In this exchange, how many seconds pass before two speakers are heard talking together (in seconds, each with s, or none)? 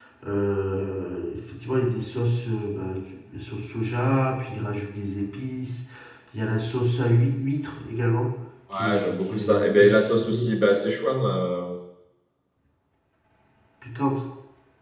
8.7 s